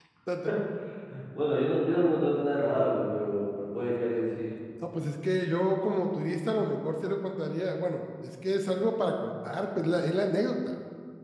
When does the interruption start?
none

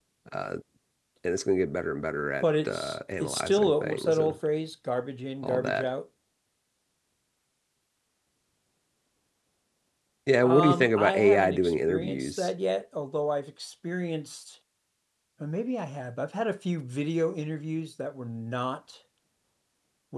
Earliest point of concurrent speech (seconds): 2 s

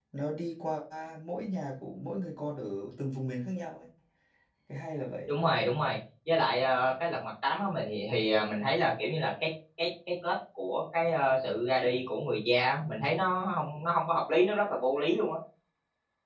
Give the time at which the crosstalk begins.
none

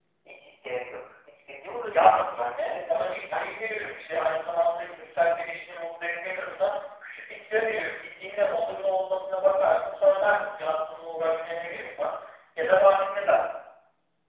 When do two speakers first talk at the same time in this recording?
2 s

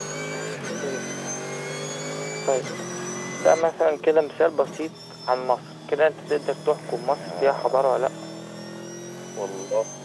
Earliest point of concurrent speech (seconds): 7 s

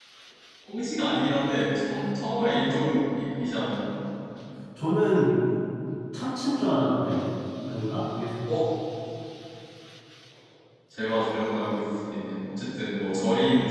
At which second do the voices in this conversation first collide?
none

